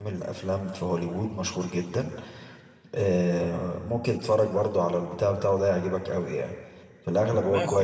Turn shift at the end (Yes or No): Yes